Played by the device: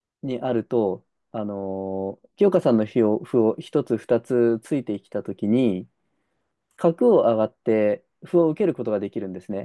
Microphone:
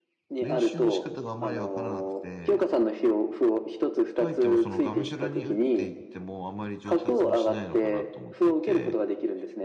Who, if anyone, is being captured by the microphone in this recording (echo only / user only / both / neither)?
both